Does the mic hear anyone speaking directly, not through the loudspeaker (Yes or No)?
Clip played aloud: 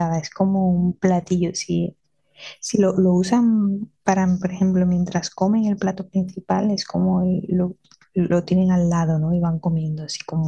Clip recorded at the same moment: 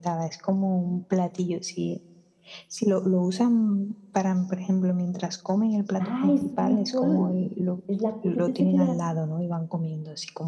Yes